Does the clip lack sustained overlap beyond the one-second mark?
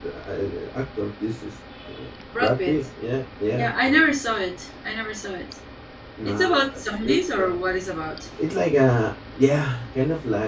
No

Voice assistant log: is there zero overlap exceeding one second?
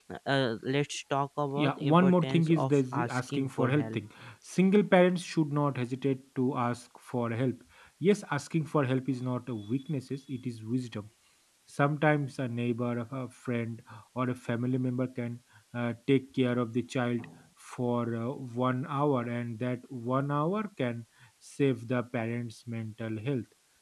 No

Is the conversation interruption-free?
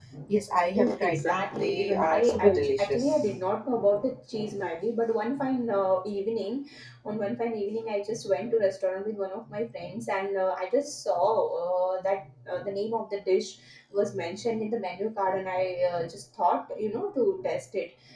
No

